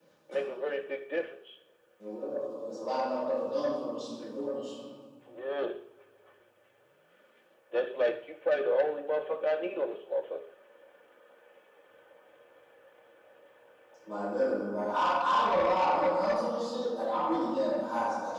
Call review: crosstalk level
none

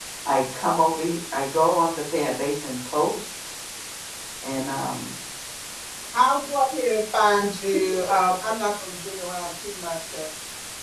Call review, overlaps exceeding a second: none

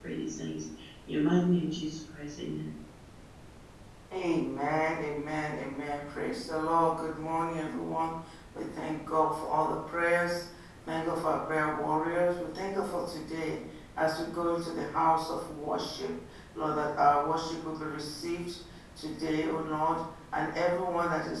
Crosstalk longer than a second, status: none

